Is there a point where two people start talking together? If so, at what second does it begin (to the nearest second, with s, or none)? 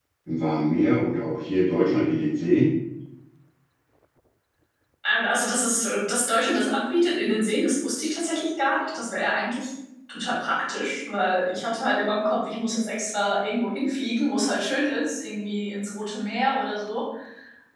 none